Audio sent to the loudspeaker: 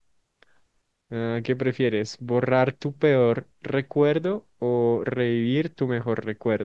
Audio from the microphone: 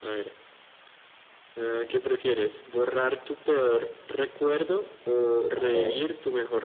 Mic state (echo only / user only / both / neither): both